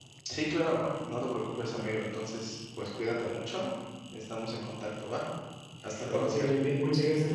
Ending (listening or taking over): taking over